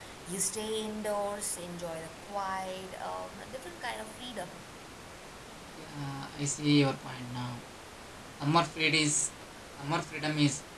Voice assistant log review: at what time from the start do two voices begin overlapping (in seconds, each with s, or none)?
none